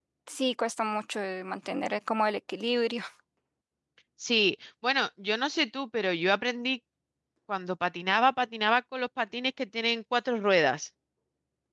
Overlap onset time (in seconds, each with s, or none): none